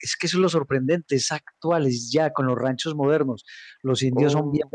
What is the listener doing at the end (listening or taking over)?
listening